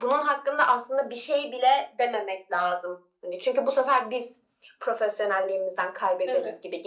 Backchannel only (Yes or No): No